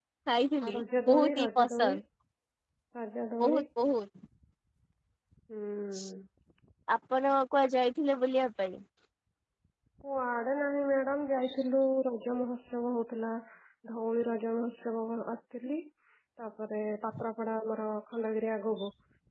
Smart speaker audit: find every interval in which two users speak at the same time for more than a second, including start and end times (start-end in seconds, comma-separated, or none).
0.7-2.0